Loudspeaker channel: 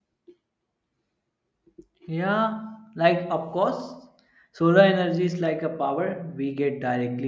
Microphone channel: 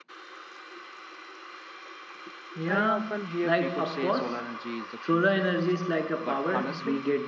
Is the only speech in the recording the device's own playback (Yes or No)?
No